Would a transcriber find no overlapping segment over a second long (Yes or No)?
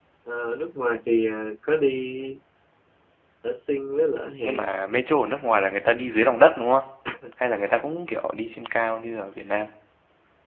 Yes